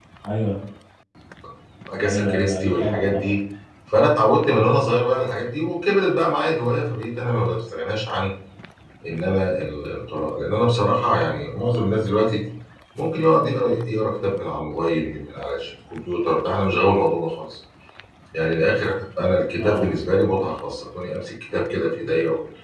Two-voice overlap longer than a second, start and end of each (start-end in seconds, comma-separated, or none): 2.0-3.3